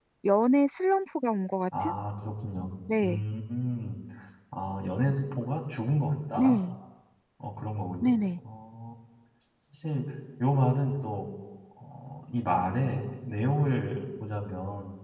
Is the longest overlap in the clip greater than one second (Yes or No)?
No